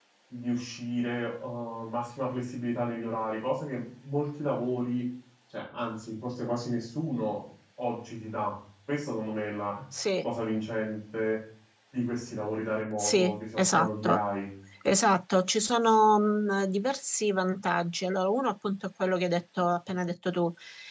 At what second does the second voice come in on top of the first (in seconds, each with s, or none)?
13.0 s